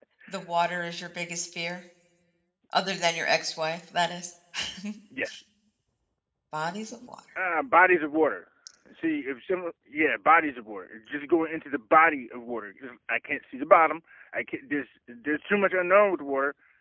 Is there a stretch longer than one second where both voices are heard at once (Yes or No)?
No